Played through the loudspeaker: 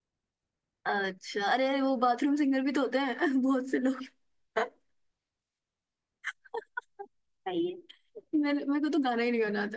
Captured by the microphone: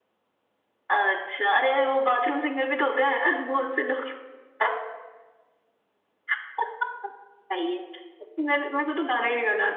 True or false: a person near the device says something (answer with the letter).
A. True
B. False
B